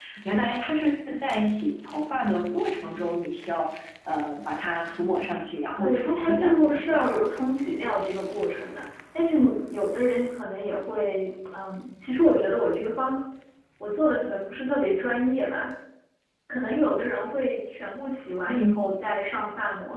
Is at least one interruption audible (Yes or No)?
Yes